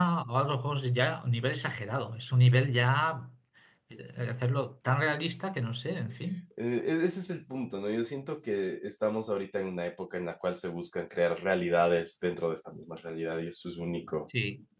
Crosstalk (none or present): none